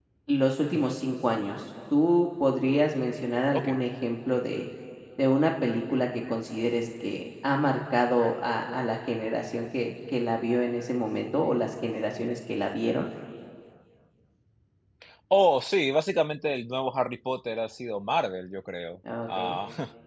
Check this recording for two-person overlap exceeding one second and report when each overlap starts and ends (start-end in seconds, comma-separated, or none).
none